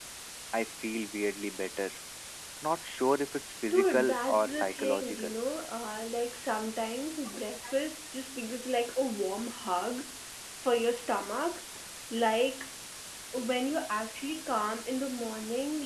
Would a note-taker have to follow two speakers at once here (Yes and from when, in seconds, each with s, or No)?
Yes, from 3.7 s